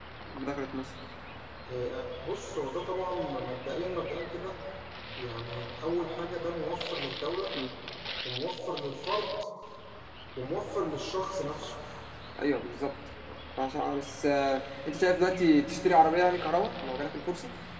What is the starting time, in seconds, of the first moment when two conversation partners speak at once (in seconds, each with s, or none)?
none